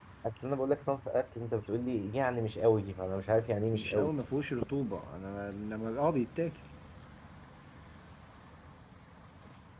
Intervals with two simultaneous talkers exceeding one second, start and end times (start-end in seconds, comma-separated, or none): none